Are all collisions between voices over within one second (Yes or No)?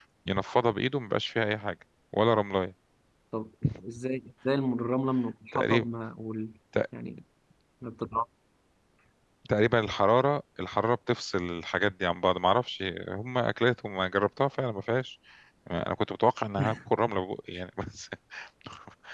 Yes